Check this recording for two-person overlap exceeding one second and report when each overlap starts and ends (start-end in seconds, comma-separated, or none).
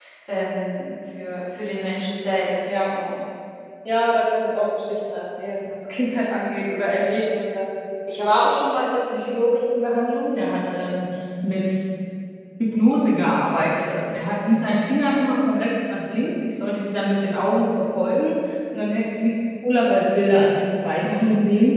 none